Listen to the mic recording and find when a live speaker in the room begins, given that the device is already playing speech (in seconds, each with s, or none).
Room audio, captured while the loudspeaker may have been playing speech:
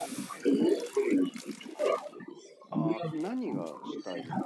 2.7 s